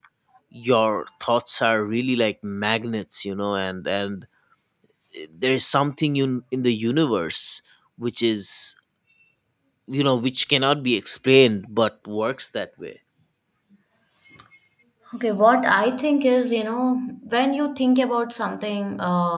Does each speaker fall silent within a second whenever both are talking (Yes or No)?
Yes